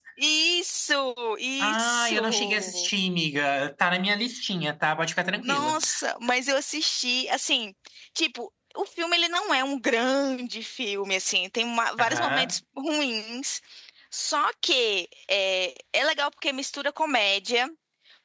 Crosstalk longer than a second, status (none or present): present